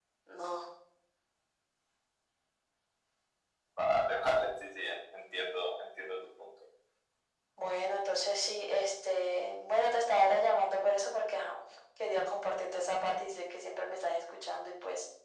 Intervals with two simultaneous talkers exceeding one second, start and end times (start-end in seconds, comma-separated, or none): none